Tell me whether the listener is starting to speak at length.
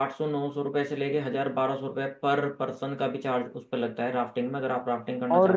Yes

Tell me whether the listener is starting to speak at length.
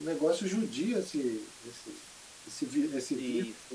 Yes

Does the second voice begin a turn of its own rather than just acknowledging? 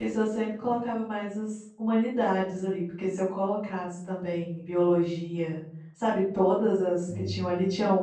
No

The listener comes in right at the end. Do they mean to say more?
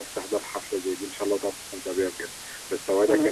No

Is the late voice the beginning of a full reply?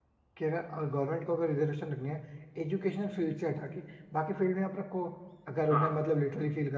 No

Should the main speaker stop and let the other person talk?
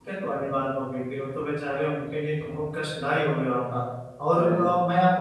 No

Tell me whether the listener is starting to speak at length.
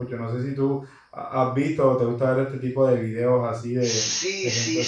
Yes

